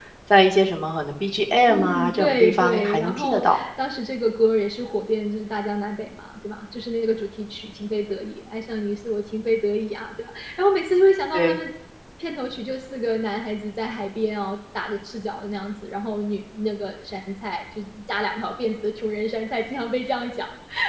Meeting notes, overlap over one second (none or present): present